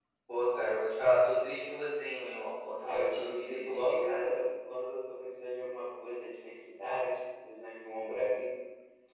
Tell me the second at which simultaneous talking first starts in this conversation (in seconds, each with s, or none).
2.8 s